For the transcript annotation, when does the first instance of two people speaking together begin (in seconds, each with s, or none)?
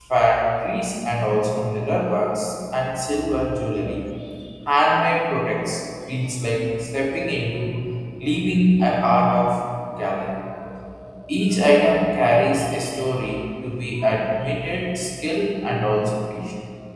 none